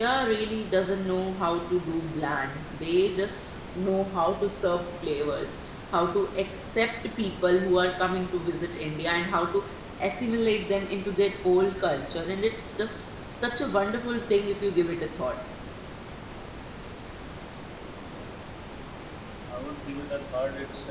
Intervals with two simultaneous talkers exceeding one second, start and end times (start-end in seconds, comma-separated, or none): none